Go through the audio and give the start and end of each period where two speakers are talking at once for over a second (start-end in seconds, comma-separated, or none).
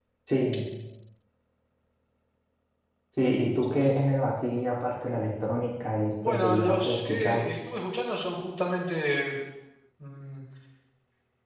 6.2-7.5